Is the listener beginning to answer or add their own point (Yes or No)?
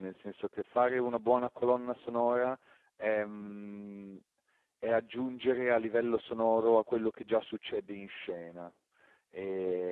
Yes